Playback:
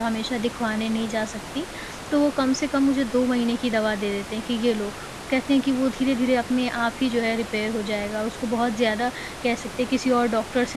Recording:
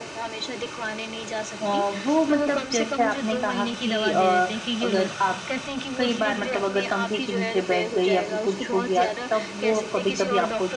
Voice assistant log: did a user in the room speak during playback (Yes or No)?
Yes